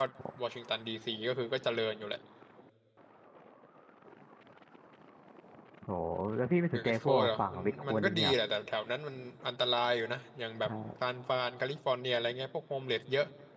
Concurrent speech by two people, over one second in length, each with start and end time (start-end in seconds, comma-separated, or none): 6.7-8.4